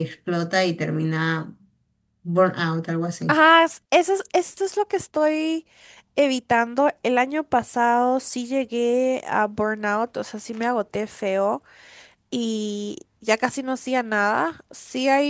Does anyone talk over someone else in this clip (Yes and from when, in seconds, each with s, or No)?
No